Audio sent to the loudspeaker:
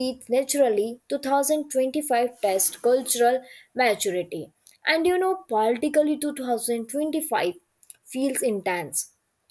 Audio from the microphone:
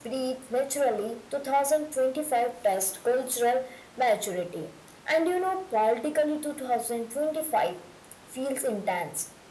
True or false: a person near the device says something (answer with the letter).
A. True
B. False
B